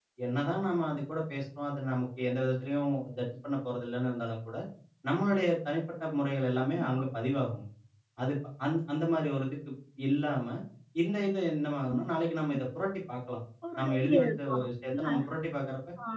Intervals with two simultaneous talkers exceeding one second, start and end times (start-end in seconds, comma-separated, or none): 13.8-15.0